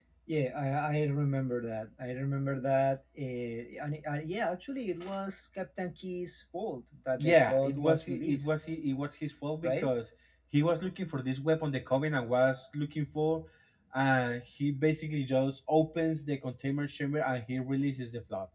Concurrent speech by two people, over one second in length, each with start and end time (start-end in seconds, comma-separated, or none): 7.2-8.5